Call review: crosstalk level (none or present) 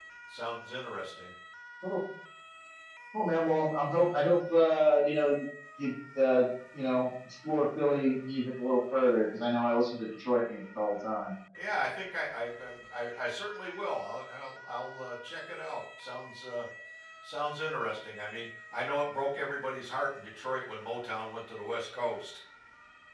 none